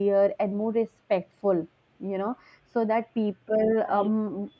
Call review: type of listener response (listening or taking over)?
listening